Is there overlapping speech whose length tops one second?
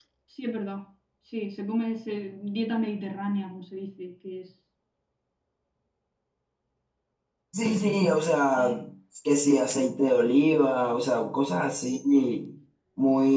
No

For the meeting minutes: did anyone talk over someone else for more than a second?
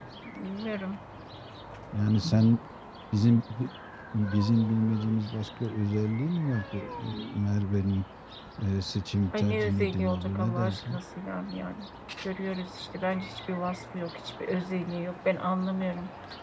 Yes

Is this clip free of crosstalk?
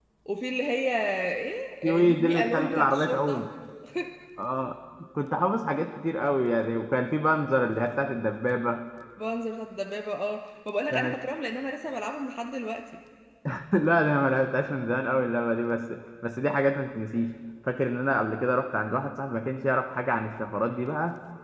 No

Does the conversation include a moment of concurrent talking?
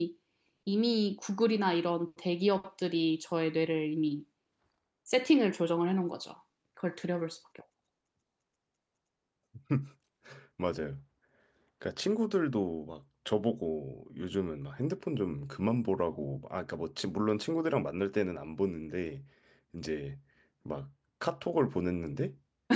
No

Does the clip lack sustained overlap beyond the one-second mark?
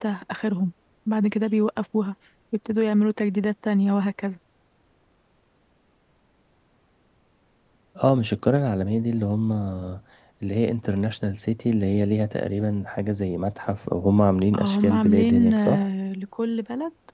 No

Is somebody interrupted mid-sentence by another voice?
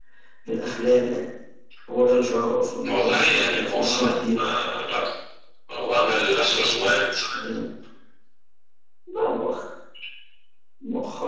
Yes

